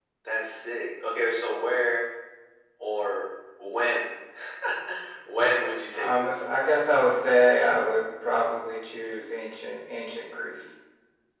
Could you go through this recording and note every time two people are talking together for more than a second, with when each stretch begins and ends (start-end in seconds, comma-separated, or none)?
5.9-7.2